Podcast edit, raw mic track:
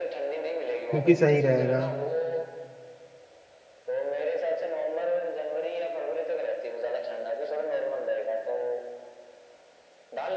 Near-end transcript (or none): क्योंकि सही रहेगा